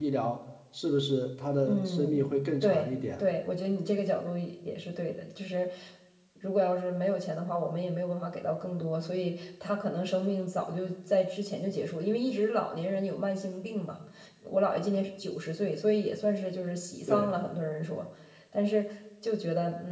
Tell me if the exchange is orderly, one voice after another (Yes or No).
No